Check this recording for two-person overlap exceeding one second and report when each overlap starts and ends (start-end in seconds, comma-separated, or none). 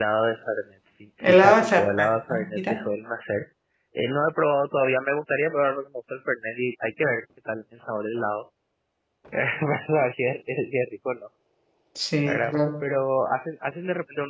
1.2-2.8